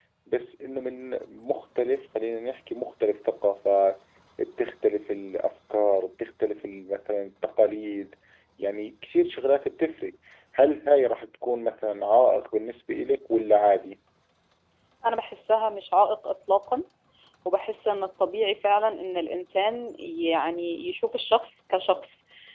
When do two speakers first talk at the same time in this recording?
none

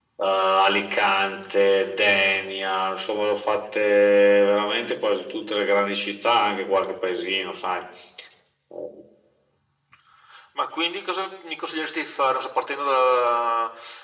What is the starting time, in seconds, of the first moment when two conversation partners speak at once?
none

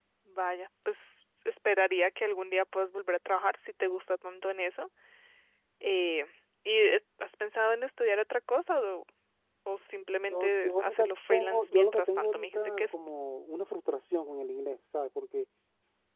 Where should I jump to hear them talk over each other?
10.3 s

